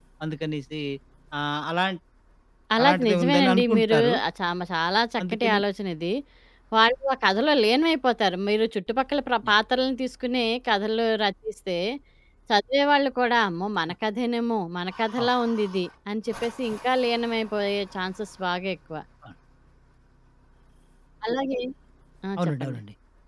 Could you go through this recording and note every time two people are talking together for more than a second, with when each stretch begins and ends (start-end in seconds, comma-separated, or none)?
2.8-4.1